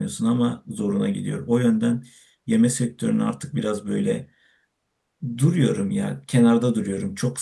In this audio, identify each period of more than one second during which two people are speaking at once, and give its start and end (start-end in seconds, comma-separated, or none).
none